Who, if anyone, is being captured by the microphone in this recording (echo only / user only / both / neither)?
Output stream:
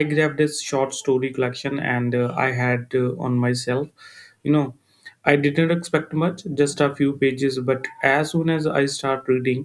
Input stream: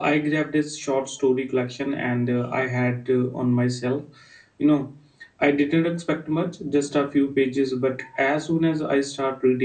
echo only